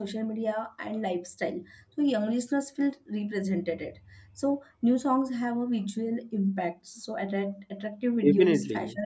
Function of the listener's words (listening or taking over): listening